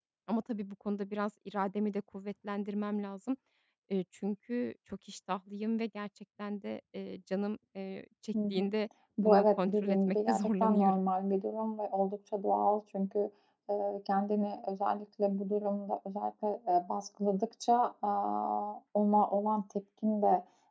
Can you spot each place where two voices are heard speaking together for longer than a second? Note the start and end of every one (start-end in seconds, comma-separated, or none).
9.2-11.0